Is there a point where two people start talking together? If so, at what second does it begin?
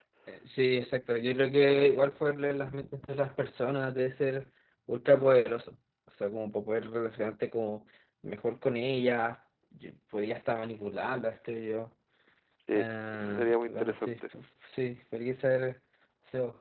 12.7 s

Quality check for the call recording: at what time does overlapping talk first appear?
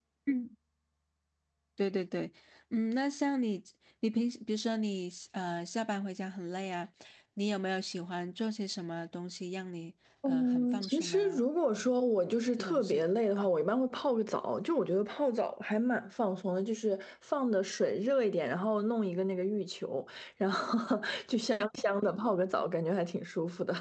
10.2 s

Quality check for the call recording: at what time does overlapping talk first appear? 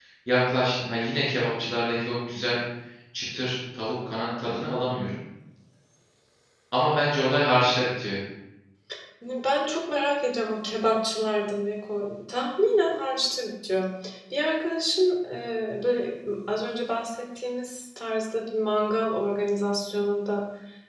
none

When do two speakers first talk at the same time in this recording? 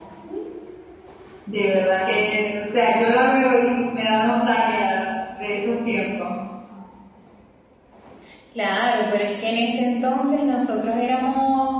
none

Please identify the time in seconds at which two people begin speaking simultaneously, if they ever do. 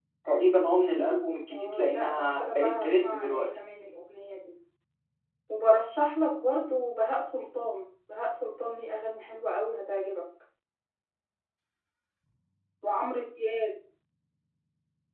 1.5 s

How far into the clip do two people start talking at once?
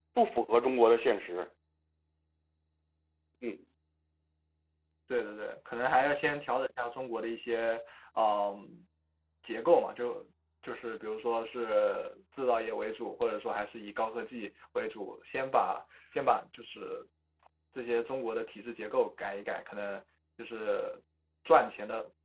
none

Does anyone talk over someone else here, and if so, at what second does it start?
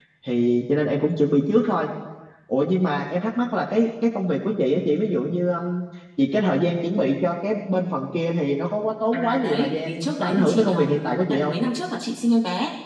9.1 s

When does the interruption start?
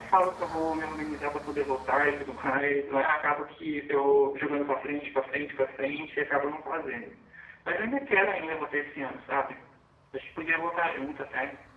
none

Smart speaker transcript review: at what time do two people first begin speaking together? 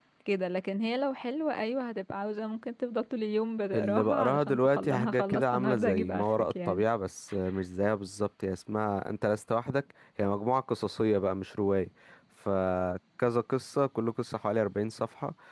3.7 s

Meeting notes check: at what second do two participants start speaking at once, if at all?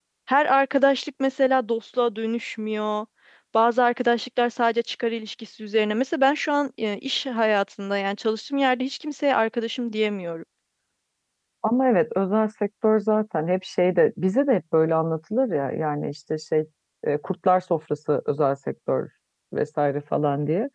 none

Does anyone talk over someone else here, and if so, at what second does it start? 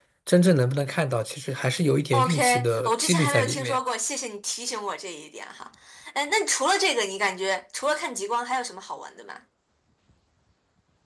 2.1 s

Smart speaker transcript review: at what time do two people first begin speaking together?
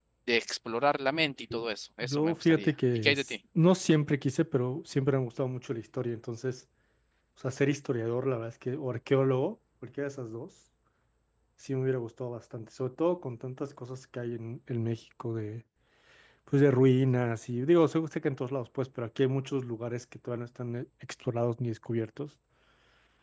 2.0 s

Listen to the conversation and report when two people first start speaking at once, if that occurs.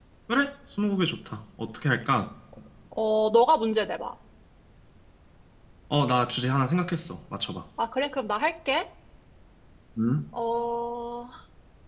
none

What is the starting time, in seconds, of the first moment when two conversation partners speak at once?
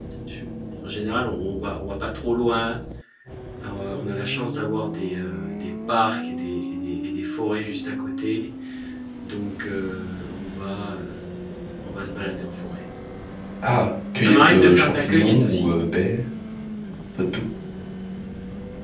14.2 s

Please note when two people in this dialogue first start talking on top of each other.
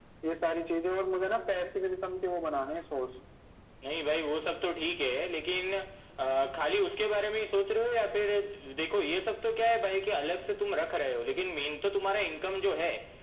none

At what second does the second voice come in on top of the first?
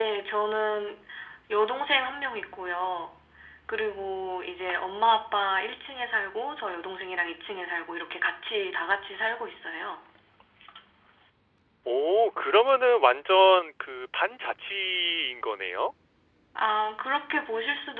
none

